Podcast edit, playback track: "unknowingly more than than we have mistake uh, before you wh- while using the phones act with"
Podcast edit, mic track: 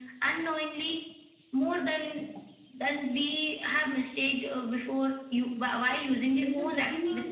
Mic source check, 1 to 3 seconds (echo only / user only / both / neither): echo only